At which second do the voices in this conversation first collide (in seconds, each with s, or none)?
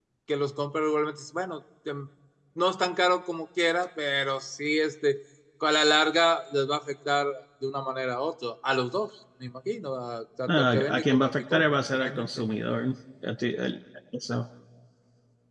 10.5 s